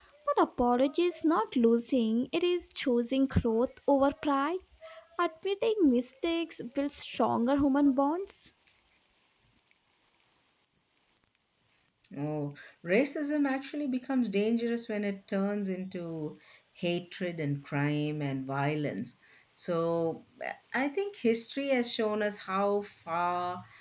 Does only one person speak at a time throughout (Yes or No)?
Yes